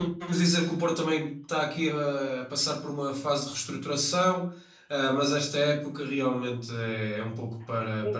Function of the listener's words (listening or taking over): taking over